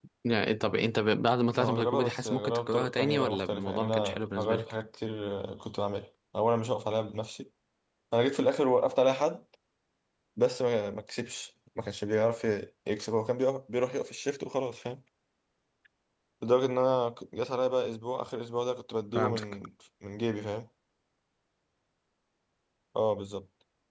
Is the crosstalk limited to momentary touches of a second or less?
No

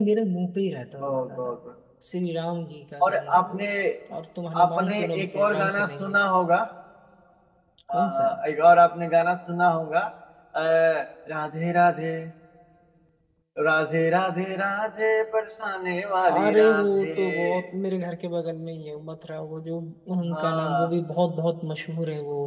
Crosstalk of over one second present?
Yes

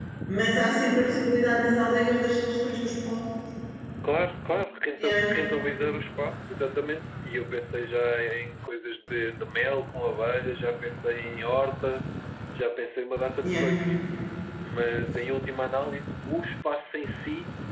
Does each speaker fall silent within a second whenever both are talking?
Yes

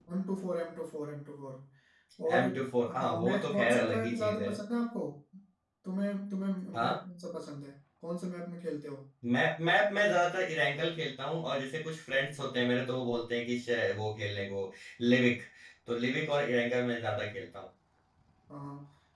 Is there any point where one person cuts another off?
Yes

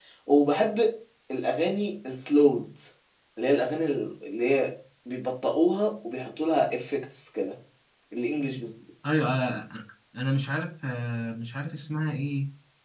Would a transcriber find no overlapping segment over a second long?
Yes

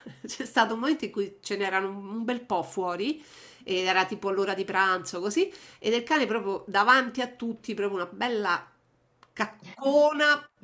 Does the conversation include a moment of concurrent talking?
No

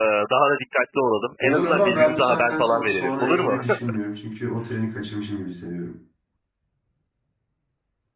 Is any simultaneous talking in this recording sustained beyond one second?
Yes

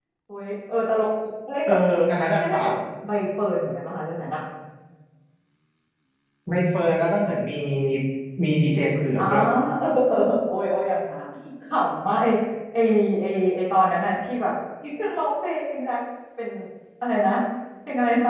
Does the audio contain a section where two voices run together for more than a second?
No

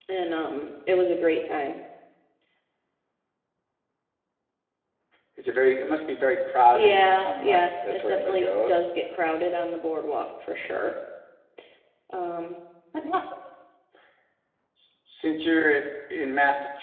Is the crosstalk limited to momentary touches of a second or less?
No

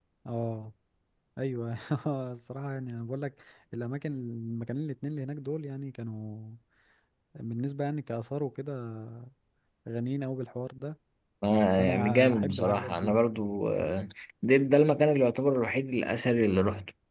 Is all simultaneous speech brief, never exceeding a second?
No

